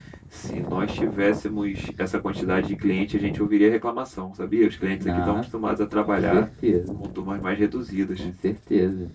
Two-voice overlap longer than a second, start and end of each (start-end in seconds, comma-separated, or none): none